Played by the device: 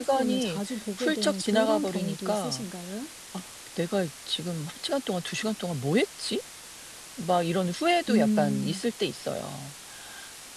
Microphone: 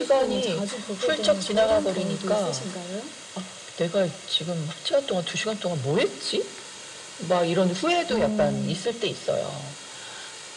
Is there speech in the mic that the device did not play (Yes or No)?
No